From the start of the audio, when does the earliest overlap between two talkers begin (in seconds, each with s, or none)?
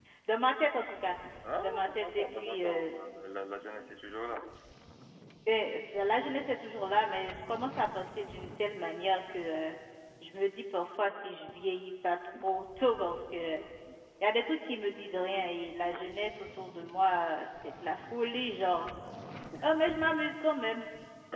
1.6 s